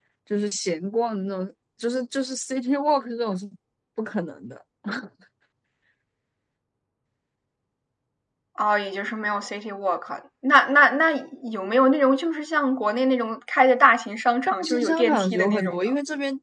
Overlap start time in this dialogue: 14.5 s

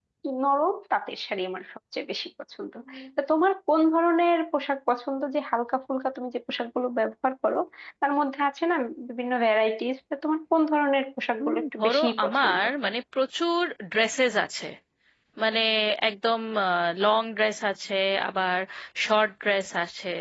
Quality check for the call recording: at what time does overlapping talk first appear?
11.4 s

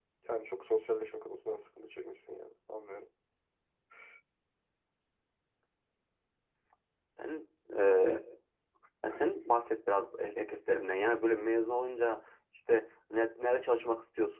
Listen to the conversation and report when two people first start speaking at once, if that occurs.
none

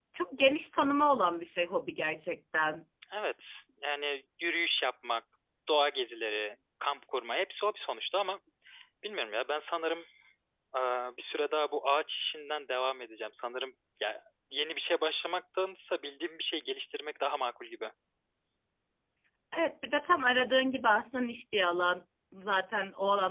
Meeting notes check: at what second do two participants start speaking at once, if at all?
none

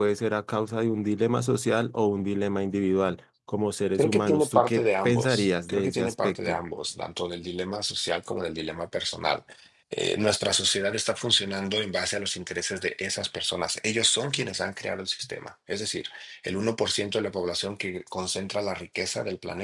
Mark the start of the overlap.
4.0 s

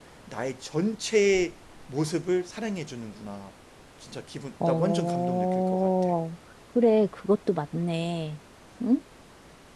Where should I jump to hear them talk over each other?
4.6 s

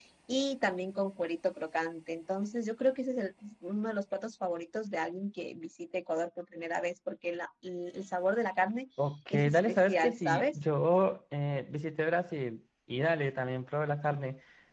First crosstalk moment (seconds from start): 9.3 s

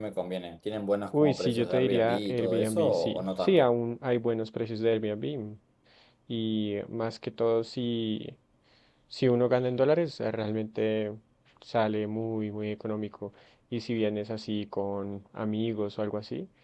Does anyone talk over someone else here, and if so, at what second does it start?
1.2 s

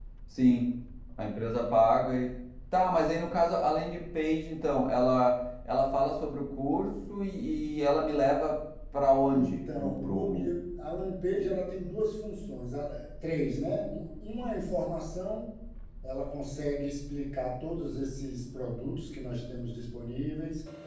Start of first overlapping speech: 9.3 s

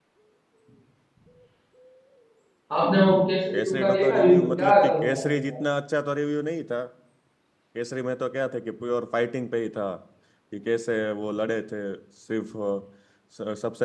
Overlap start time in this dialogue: 3.5 s

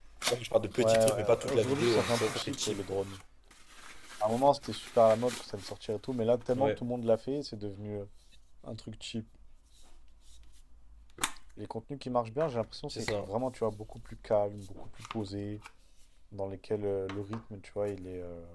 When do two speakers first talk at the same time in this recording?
0.8 s

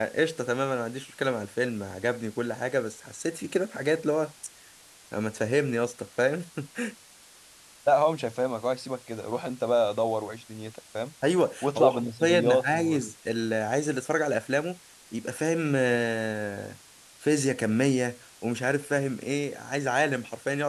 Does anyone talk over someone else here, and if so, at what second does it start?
11.6 s

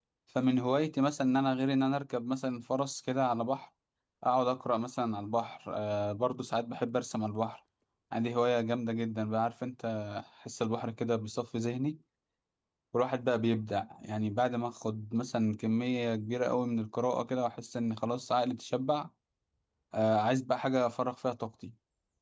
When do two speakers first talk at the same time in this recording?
none

